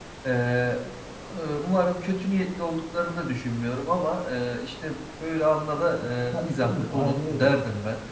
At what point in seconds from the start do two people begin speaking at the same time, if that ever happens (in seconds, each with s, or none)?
6.0 s